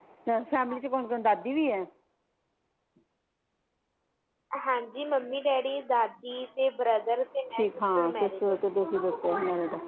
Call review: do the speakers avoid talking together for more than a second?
No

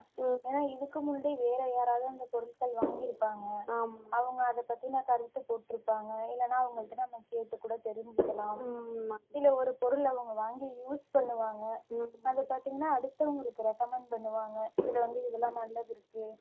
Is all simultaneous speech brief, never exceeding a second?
Yes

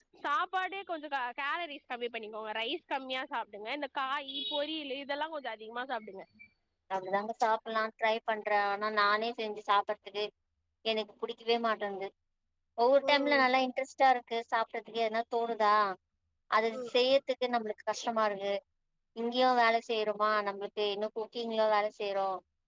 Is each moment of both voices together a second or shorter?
Yes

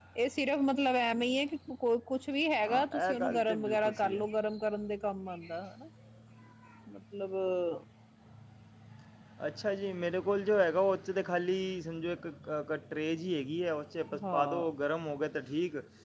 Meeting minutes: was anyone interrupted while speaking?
Yes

